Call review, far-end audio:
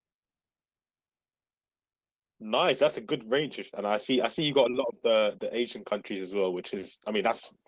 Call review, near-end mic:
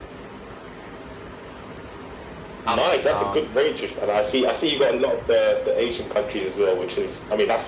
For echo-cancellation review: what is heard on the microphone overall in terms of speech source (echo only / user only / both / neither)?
both